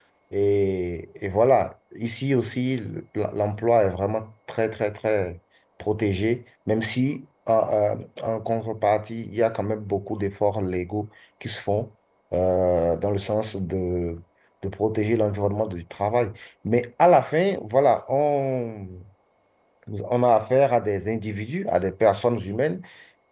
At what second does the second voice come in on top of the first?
none

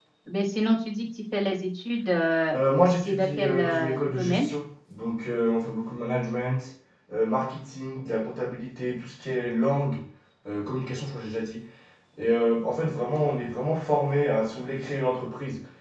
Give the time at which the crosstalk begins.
3.0 s

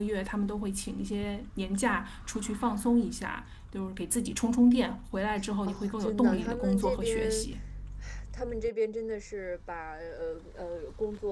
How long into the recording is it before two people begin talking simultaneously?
5.7 s

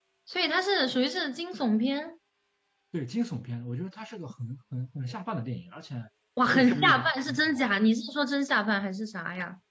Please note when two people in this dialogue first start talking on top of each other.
6.5 s

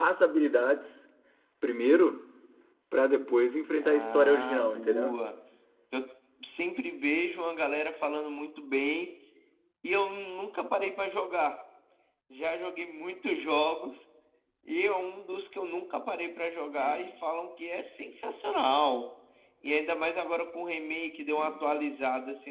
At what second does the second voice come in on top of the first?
3.8 s

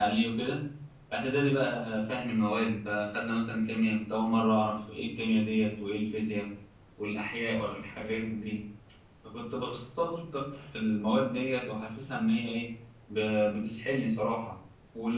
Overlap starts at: none

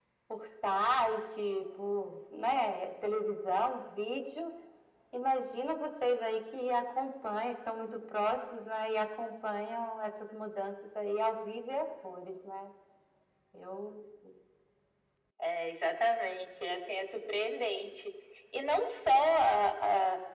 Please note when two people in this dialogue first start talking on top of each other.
none

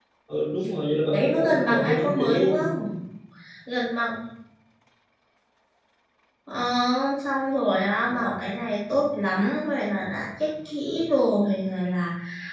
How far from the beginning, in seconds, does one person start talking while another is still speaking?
1.1 s

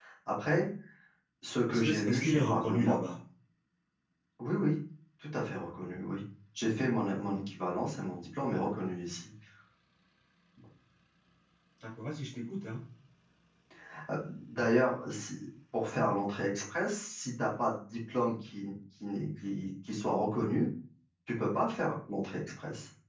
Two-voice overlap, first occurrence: 1.7 s

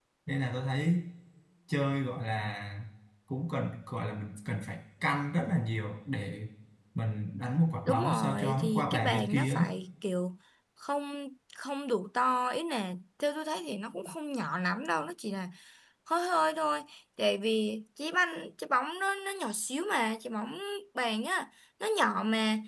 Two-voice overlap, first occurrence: 7.8 s

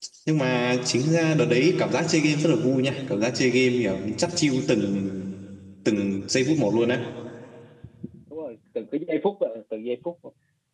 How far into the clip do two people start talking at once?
none

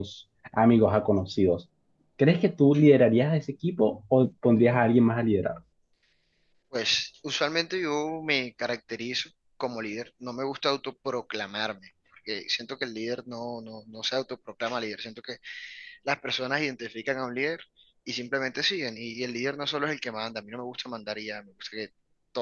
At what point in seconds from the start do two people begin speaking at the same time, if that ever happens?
none

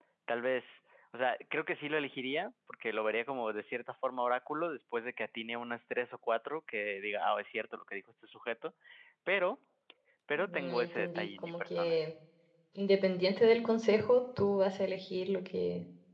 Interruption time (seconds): 10.4 s

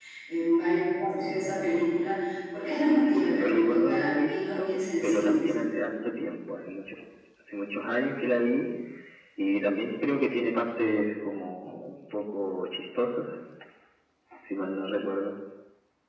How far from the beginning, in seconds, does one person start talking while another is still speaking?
2.9 s

